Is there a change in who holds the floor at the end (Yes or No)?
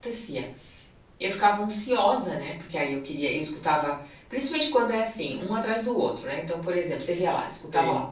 No